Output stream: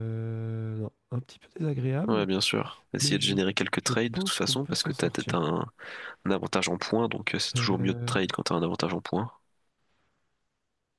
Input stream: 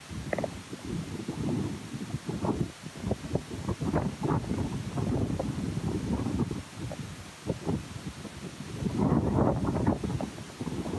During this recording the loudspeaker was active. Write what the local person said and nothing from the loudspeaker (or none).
none